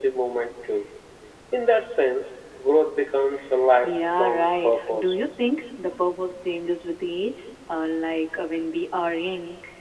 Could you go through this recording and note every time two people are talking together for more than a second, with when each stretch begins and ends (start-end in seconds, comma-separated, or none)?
3.8-5.2